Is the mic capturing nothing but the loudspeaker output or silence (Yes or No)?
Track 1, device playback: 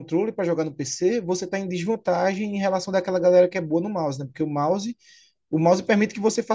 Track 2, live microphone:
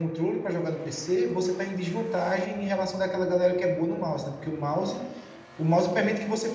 Yes